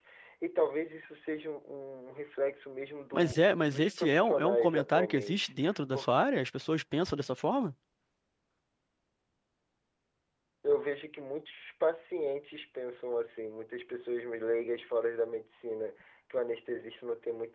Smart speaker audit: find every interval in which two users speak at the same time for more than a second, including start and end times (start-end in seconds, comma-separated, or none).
3.1-5.5